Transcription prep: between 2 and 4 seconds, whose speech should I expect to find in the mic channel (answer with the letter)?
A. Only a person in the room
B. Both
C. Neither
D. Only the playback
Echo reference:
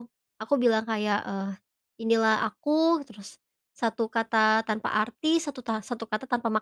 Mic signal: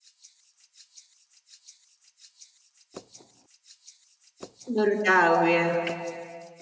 C